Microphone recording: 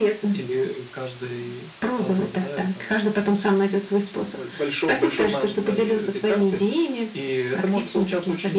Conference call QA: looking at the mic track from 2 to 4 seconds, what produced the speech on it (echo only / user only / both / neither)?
echo only